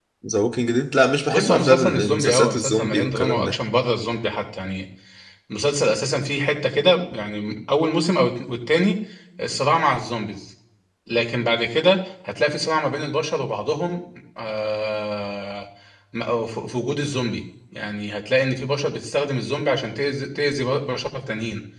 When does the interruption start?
1 s

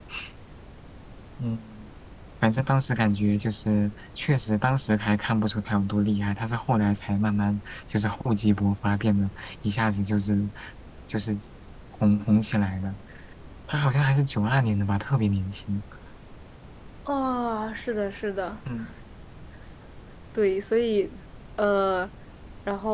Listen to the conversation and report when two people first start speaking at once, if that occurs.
none

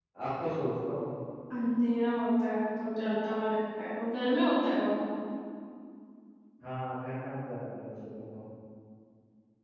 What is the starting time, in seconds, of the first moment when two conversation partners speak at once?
none

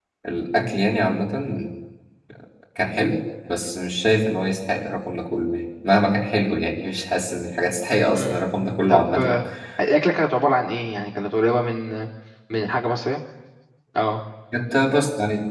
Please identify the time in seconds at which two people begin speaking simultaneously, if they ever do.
8 s

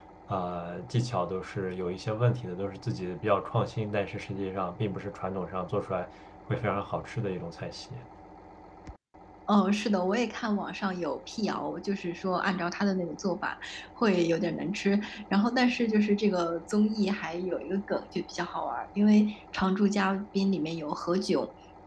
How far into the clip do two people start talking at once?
none

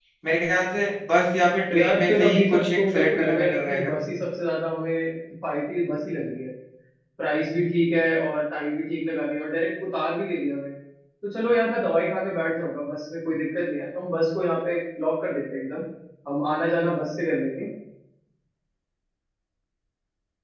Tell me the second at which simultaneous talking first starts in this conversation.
2 s

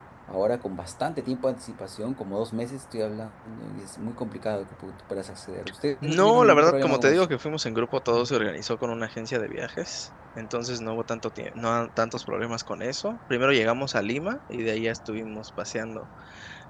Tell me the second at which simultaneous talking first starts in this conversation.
6 s

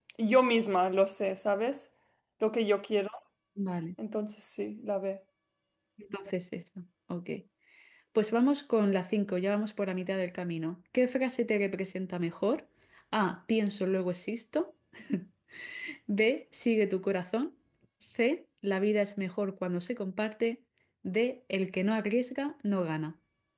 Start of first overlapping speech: none

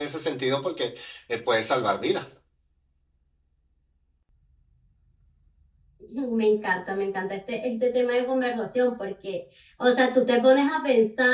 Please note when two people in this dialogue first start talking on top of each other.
none

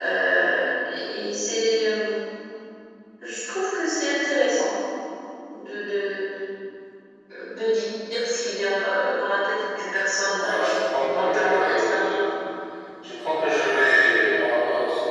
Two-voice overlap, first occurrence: 10 s

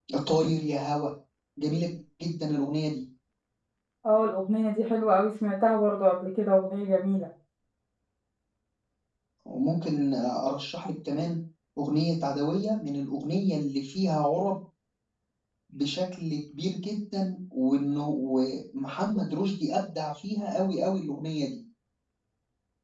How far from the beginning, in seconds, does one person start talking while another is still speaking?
none

